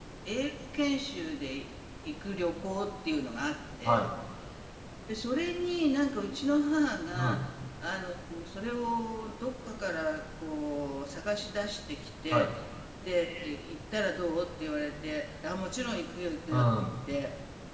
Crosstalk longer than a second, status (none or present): none